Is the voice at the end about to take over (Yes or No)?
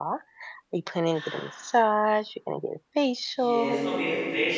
Yes